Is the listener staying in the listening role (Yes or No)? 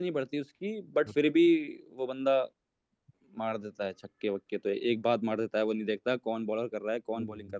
No